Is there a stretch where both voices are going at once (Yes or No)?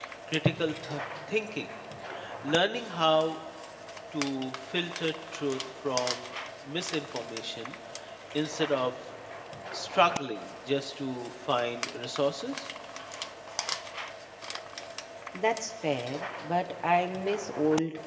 No